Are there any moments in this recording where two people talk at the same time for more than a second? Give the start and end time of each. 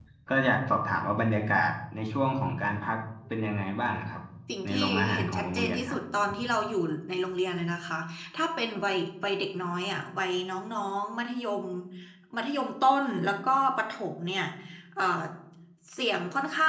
4.6-6.0

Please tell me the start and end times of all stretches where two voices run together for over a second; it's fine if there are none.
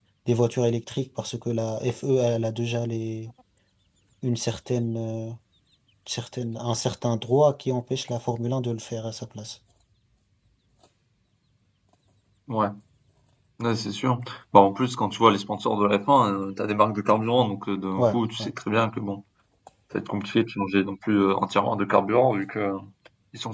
none

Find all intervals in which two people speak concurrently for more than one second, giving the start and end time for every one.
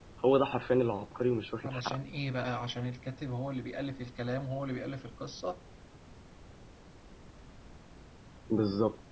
none

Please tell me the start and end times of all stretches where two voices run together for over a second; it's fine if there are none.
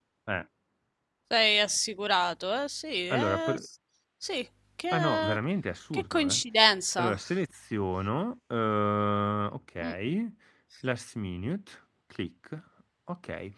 none

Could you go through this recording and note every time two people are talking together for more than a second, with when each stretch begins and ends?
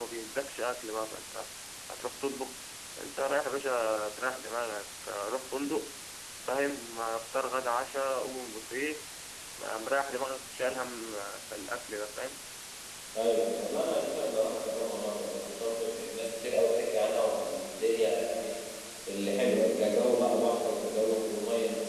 none

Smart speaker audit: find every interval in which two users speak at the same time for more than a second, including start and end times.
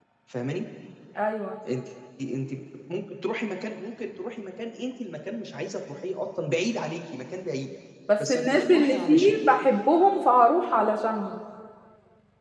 8.2-9.5

